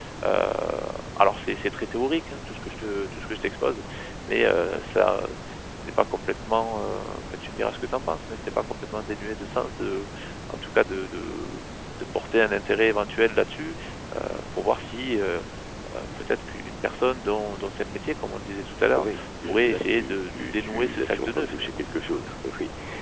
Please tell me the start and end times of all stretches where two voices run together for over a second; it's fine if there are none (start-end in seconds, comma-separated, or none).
19.0-21.8